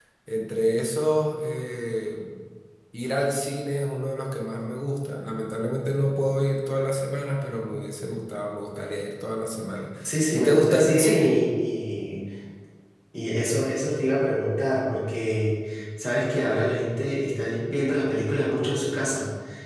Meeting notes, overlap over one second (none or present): present